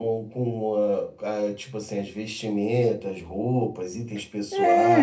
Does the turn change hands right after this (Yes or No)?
Yes